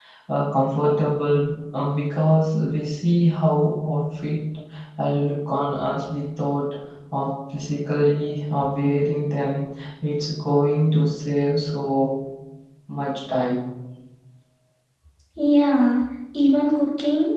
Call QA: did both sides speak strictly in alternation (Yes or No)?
Yes